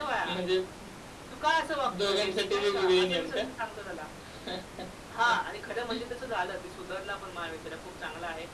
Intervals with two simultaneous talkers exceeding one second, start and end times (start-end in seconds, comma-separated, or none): 2.0-3.4